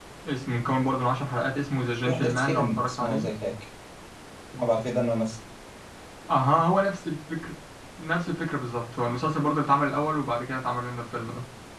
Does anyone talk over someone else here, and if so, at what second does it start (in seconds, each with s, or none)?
2.0 s